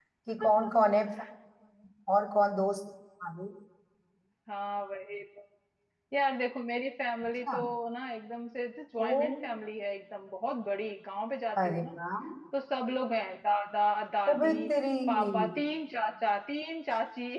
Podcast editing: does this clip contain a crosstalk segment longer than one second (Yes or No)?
No